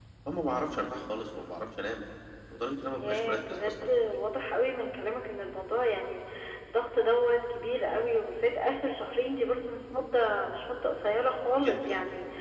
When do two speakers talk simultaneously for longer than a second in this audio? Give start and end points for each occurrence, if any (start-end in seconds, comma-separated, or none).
2.9-4.2